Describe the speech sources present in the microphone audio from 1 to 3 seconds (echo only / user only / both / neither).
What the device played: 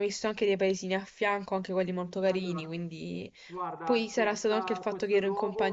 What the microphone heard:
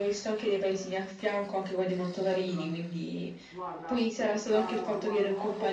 echo only